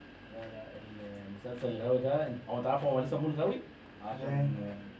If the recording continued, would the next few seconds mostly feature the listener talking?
No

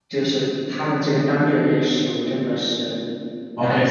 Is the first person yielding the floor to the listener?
Yes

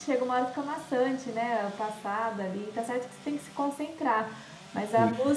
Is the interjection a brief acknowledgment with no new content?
Yes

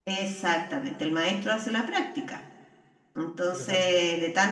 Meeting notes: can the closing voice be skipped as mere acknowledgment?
Yes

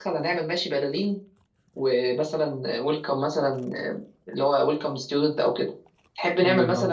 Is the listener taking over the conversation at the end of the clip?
No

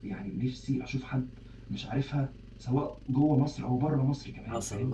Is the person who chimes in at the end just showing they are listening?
No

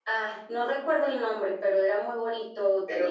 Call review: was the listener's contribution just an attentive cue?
Yes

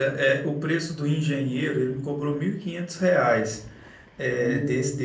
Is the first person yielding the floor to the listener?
No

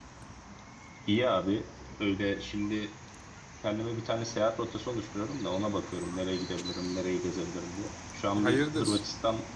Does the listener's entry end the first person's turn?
No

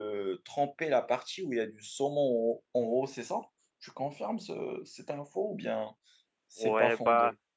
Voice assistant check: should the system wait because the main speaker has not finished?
No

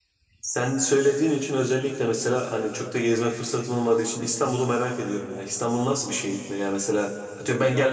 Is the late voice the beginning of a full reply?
No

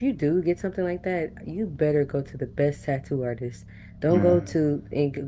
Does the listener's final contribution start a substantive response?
No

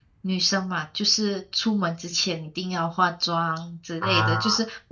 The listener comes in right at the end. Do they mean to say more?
No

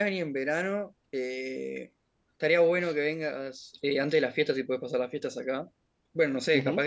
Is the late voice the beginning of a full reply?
Yes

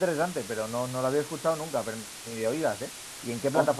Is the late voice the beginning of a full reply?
Yes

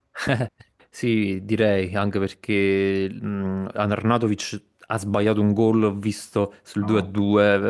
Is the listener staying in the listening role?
Yes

